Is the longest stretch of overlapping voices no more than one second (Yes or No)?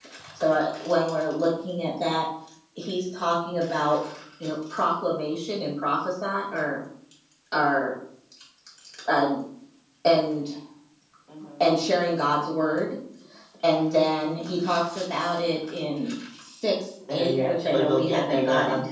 No